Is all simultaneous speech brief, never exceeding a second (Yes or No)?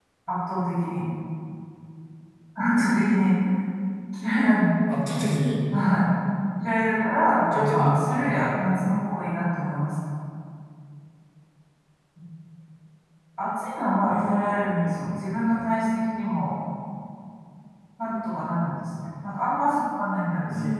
No